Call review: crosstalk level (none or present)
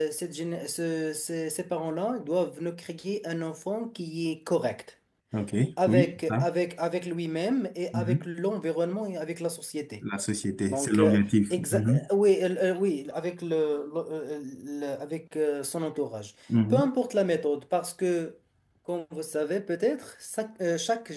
present